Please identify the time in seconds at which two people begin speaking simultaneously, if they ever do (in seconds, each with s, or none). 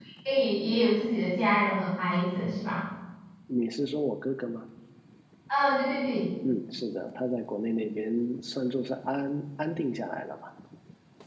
none